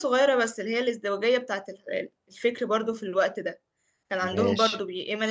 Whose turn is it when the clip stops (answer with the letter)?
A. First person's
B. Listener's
A